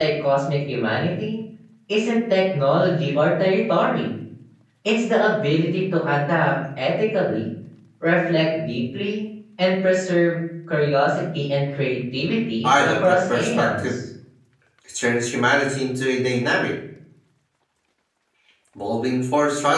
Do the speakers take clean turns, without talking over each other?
No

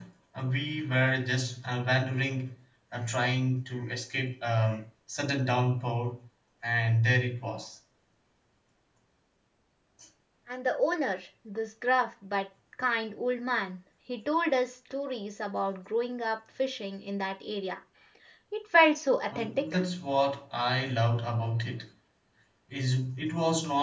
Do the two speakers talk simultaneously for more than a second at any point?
No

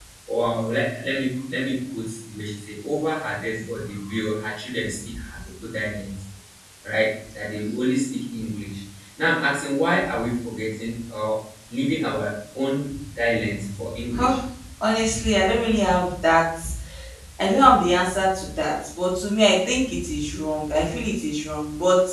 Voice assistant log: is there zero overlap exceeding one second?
Yes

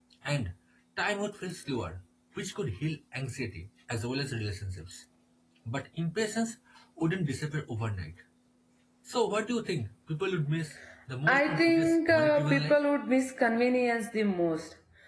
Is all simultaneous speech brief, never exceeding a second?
No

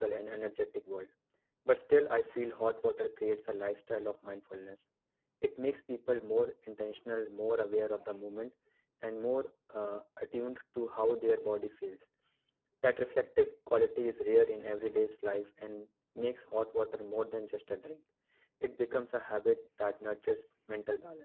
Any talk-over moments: No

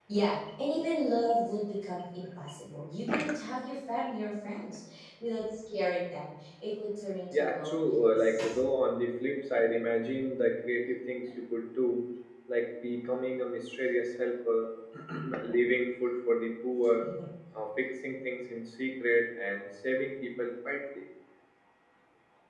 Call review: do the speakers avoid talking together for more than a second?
No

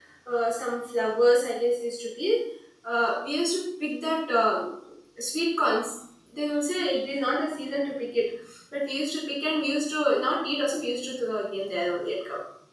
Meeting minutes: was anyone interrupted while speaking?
No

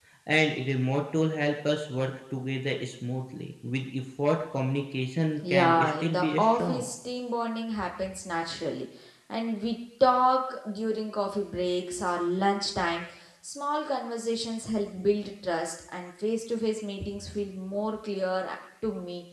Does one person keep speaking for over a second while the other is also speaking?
Yes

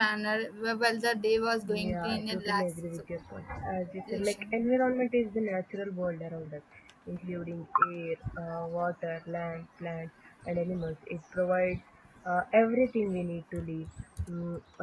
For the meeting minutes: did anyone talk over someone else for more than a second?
Yes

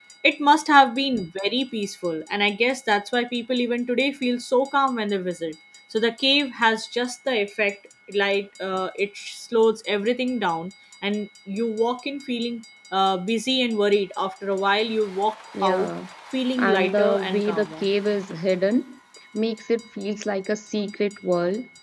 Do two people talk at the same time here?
Yes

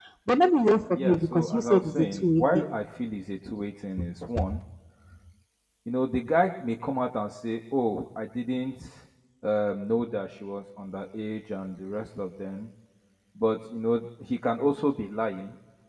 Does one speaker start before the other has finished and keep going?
Yes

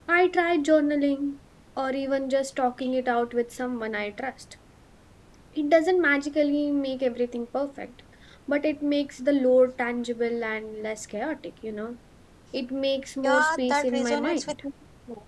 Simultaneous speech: Yes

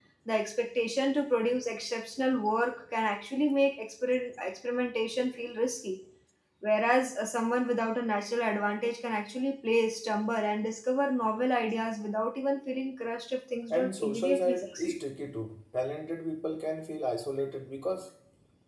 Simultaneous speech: Yes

